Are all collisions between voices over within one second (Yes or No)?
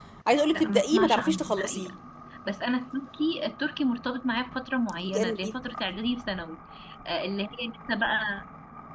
No